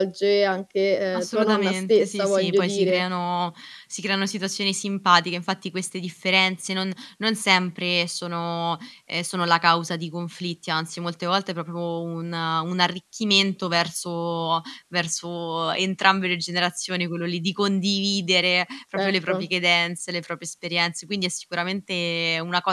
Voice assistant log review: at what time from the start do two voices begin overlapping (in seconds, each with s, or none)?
1.2 s